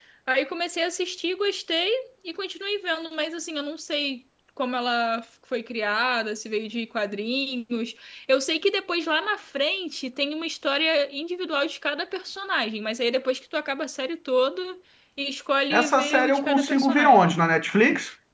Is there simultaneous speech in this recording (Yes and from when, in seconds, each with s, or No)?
Yes, from 15.7 s